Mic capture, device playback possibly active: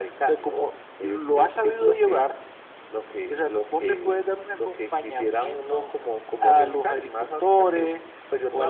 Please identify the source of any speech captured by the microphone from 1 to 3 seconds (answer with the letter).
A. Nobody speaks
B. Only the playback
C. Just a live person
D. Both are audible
B